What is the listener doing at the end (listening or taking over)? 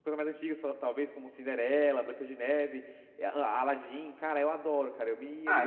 taking over